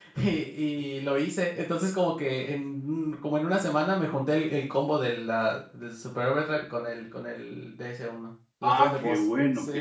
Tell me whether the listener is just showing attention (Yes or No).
No